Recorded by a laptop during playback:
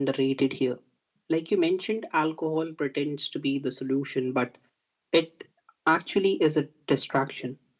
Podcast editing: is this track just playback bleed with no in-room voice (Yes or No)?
Yes